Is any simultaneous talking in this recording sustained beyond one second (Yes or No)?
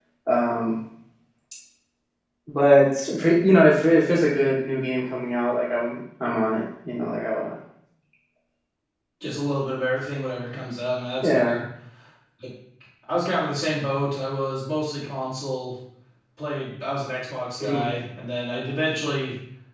No